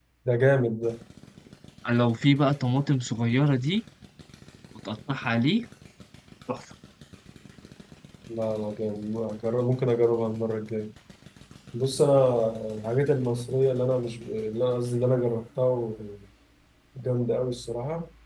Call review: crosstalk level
none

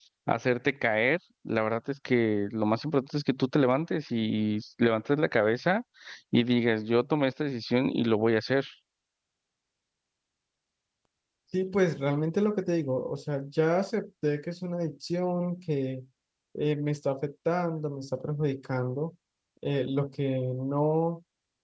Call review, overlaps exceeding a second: none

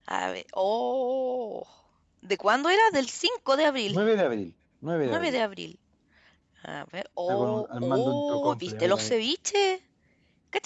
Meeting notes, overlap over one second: present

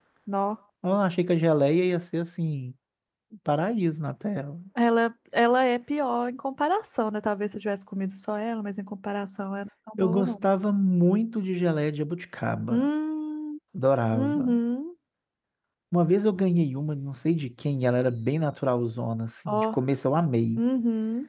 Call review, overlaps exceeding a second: none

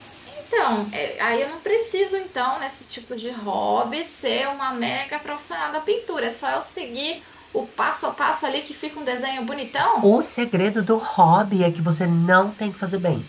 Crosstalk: none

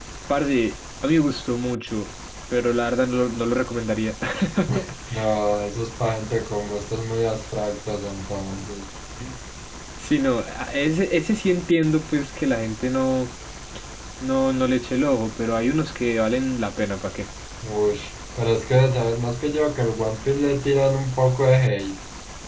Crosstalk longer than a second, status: none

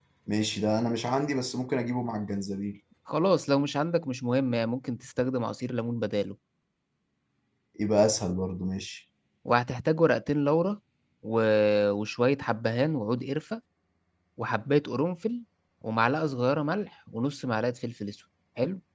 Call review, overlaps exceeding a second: none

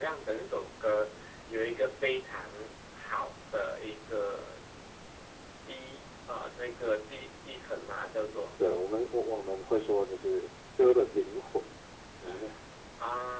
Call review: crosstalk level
none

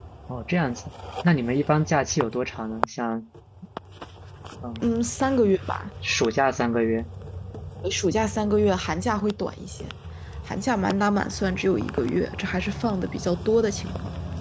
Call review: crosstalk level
none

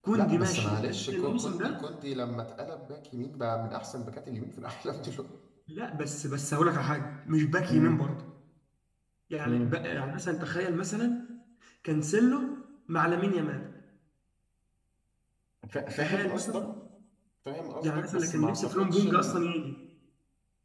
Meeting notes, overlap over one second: present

